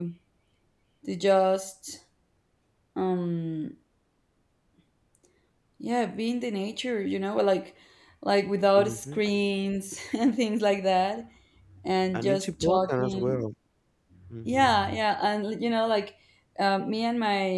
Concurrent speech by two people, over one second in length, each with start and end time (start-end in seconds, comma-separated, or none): 12.1-13.4